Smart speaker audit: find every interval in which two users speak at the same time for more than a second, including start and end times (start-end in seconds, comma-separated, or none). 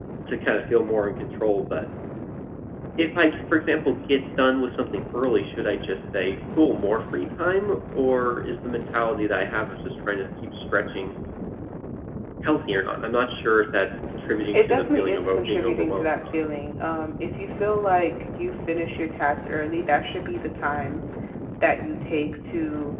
14.5-16.3